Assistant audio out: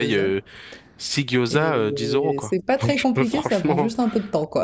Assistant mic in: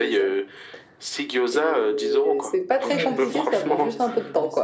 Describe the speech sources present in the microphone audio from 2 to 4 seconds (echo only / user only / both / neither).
both